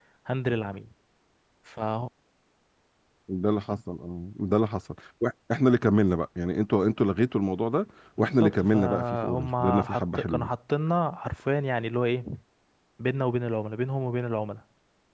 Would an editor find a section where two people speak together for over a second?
Yes, from 8.2 s

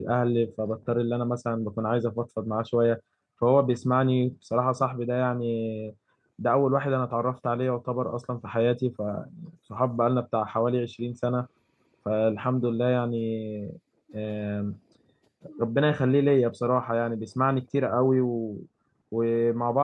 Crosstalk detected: No

